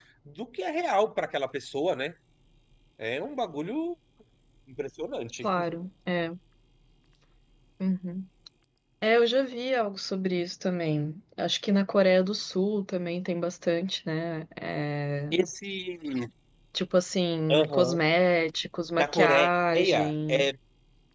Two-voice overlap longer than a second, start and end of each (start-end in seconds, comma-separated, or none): 19.0-20.5